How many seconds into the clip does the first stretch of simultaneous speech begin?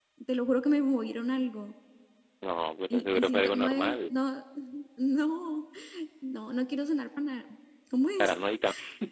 2.9 s

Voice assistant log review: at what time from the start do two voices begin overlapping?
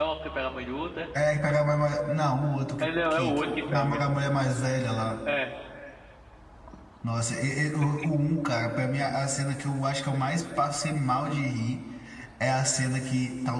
2.8 s

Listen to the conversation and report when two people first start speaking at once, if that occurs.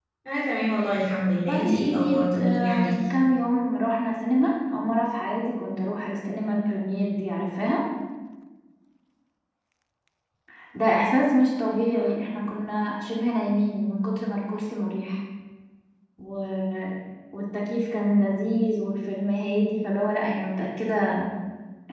1.5 s

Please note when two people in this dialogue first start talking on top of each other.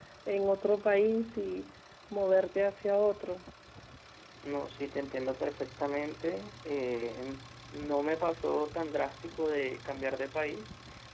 none

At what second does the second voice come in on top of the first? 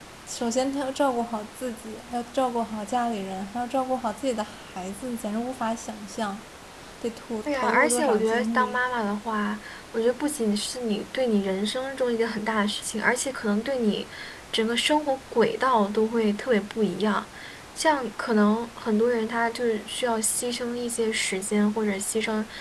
7.5 s

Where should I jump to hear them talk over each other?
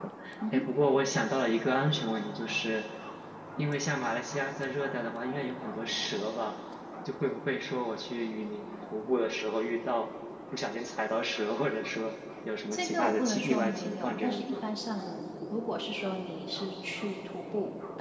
12.7 s

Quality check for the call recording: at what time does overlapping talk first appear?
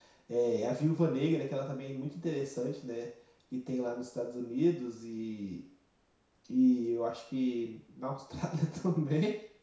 none

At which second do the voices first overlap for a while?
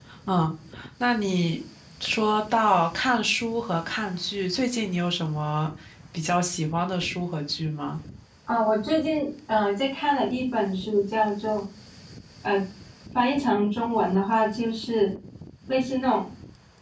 none

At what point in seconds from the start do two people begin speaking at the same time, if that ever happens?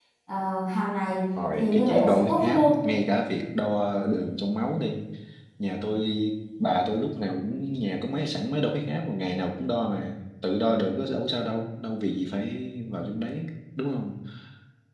1.4 s

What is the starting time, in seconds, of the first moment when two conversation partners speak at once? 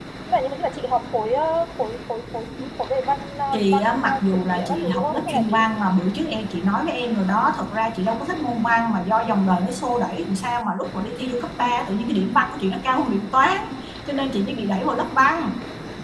3.5 s

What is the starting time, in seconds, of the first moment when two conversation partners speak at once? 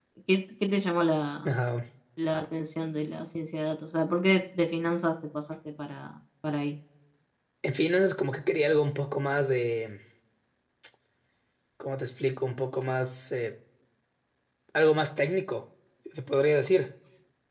none

